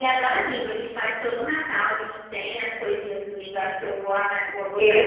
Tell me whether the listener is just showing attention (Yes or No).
No